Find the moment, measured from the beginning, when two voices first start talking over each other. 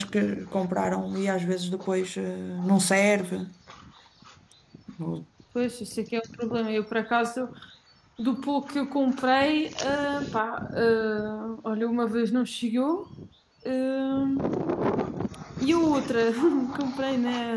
none

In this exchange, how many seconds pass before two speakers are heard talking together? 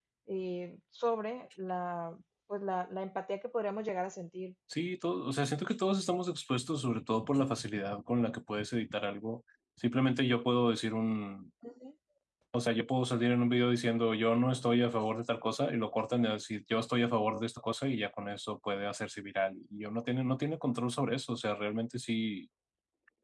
none

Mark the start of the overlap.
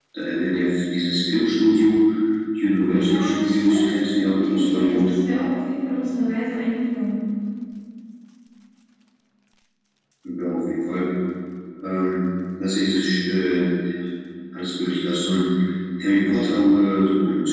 3.0 s

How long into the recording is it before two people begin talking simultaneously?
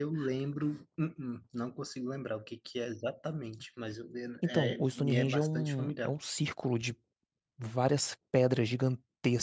4.5 s

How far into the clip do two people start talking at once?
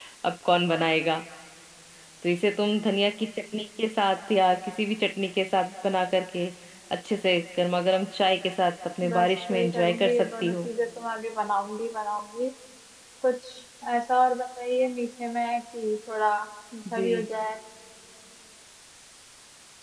9.1 s

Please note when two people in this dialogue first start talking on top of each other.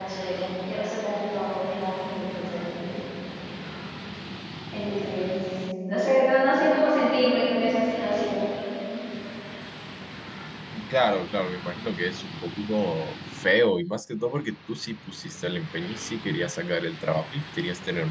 none

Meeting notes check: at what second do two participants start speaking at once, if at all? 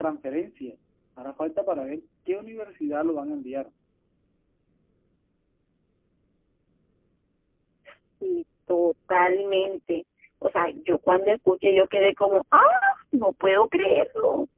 none

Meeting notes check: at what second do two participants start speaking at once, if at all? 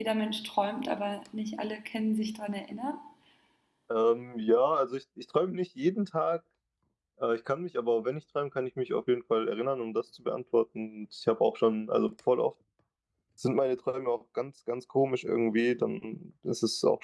none

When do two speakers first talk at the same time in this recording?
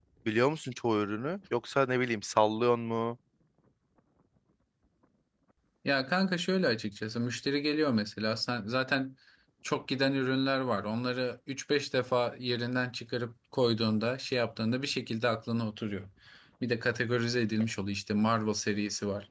none

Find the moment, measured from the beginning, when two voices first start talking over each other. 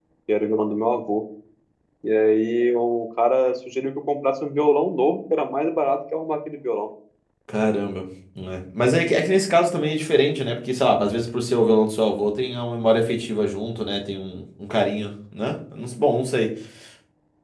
none

